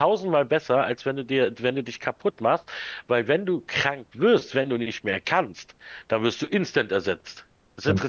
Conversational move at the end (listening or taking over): listening